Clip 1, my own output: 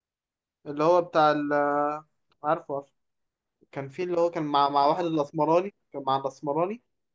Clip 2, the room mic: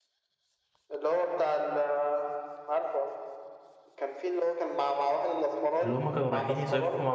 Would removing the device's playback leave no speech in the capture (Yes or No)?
No